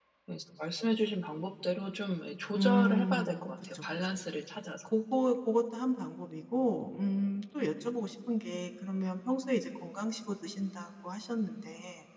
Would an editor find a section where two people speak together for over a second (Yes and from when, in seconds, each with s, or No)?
Yes, from 2.5 s